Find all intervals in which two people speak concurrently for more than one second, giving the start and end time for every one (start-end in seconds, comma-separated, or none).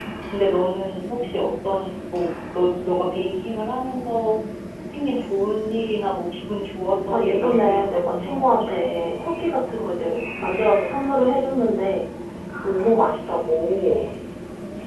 7.1-8.6